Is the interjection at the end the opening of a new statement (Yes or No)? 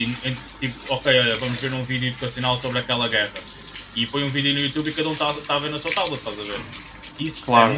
No